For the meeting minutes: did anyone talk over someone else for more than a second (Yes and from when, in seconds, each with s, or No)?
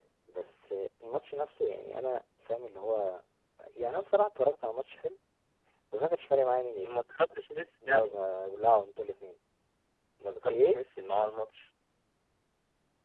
No